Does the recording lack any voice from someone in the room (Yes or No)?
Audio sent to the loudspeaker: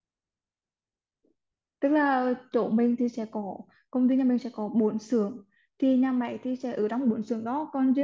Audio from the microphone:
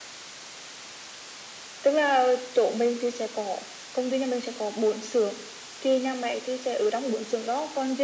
Yes